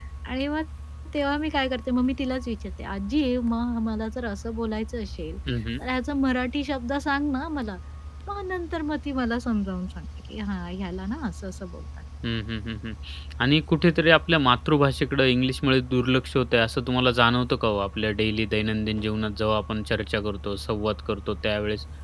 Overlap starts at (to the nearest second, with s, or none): none